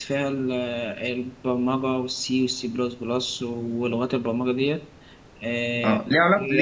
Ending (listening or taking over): taking over